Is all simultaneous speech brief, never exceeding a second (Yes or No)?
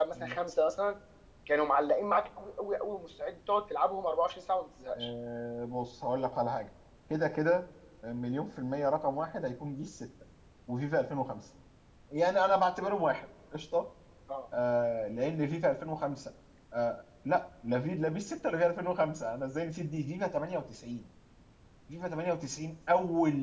Yes